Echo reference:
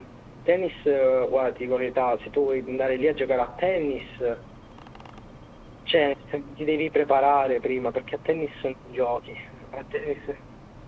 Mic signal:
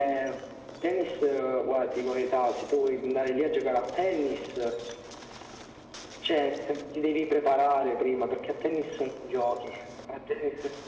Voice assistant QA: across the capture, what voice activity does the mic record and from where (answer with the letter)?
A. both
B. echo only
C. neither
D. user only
B